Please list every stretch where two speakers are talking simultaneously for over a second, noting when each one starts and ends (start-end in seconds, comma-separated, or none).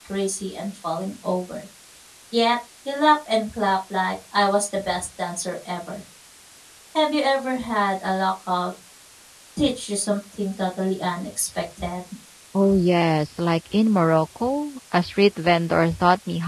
none